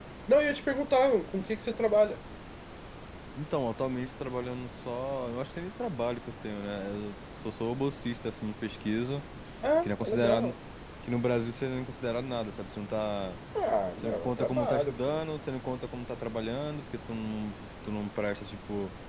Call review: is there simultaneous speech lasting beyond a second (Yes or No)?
Yes